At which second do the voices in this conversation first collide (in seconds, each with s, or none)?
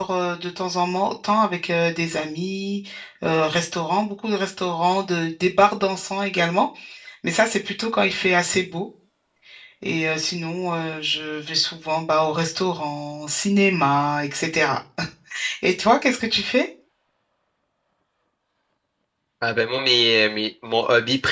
none